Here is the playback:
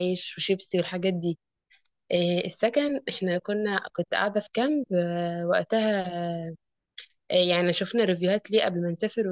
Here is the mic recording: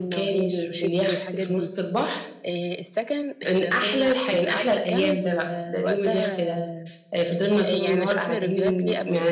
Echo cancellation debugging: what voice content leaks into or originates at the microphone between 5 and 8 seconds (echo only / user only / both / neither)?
both